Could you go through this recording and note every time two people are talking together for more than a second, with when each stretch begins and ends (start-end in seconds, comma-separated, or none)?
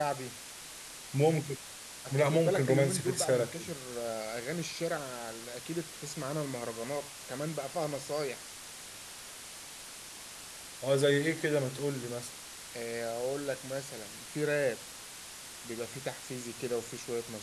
2.1-3.7